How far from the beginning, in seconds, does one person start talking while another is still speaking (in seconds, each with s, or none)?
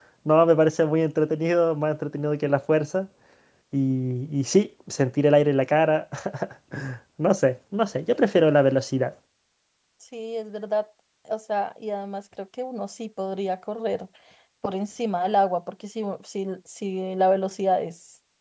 none